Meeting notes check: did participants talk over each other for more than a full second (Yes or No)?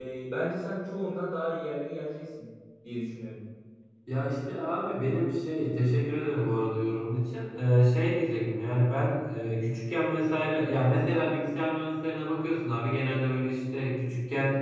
No